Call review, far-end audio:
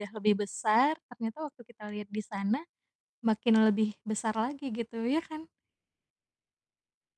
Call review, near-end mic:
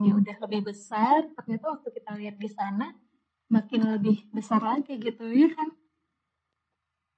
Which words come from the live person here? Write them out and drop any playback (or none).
none